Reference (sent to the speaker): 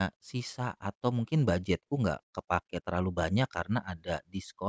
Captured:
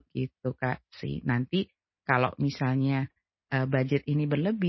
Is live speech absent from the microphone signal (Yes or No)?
No